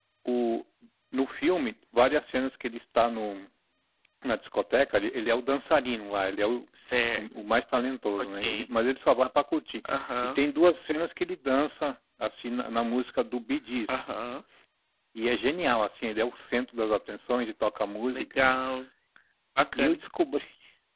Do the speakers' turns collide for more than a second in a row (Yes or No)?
No